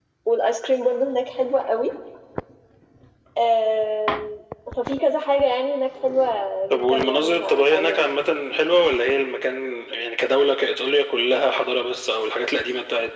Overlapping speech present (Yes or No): Yes